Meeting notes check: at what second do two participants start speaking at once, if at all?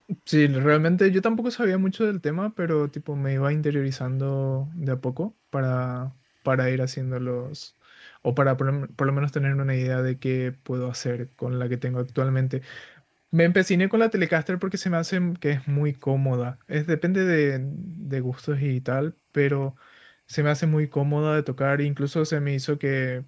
none

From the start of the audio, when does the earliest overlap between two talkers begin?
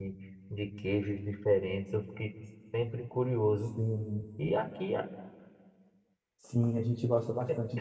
none

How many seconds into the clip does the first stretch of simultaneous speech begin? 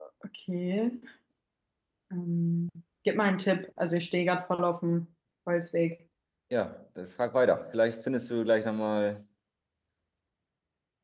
none

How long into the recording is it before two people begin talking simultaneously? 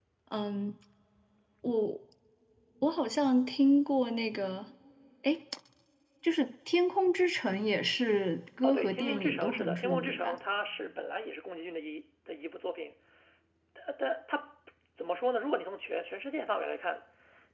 8.6 s

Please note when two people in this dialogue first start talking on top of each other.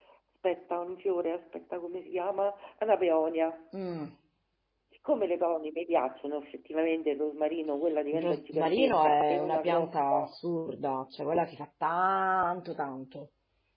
8.1 s

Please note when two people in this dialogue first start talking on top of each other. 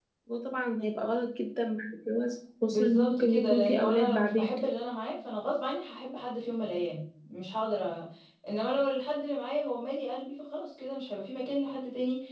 2.7 s

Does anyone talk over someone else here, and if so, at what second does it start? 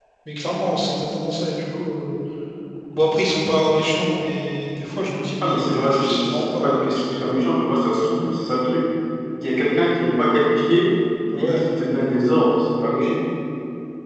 5.4 s

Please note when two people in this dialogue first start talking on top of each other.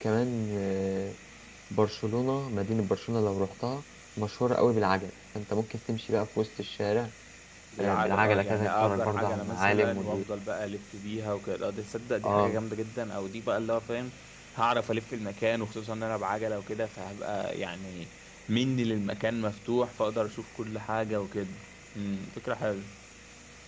7.8 s

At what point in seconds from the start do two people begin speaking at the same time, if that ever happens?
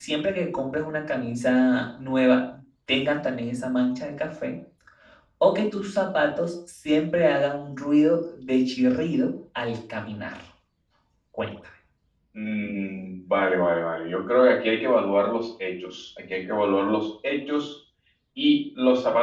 none

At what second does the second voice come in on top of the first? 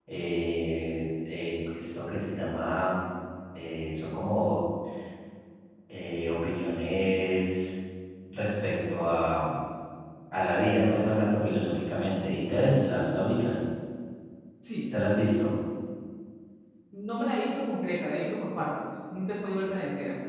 none

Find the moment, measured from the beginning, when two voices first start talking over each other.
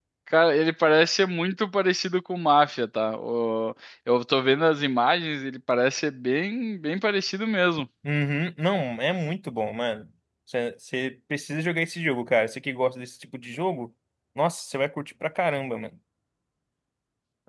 none

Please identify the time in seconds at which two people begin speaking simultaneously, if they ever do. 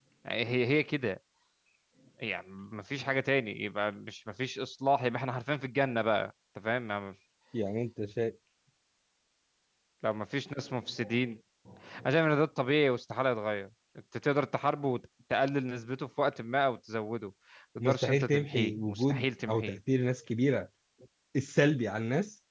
17.8 s

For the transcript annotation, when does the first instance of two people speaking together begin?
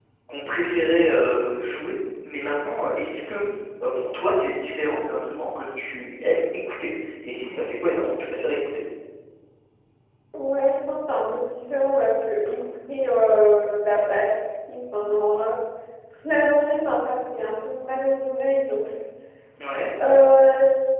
none

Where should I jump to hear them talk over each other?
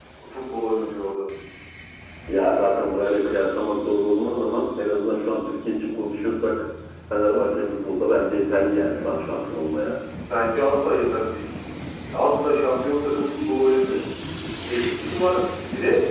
none

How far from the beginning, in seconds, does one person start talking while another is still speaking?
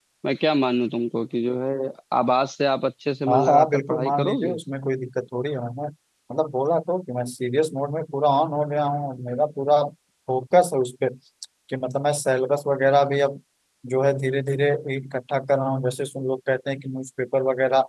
3.3 s

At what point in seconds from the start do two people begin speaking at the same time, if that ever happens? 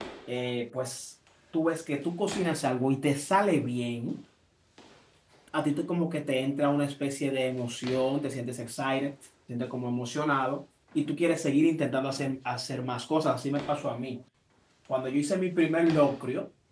none

